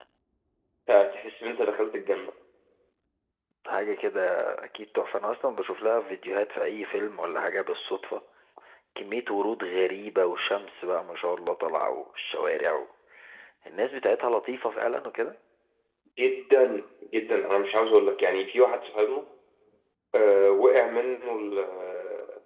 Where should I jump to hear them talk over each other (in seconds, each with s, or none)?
none